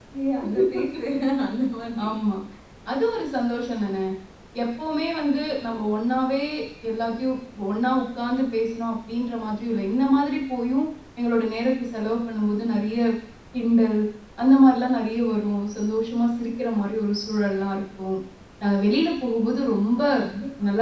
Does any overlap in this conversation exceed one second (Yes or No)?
No